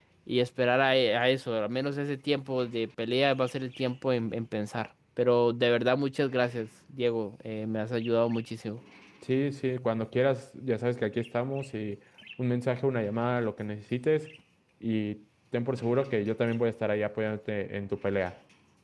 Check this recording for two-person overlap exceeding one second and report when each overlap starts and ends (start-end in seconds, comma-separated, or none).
none